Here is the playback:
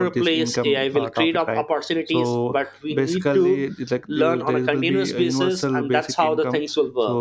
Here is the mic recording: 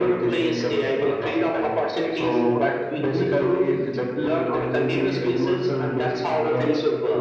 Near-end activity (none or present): none